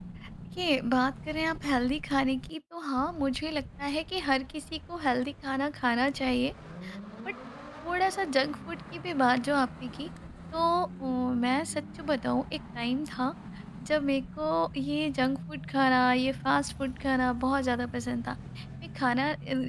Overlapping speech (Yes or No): No